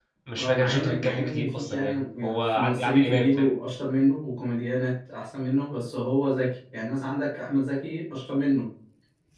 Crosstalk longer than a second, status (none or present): present